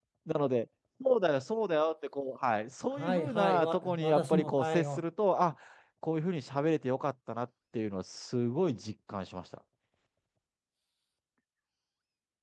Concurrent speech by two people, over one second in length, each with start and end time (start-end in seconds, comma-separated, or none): 3.0-5.0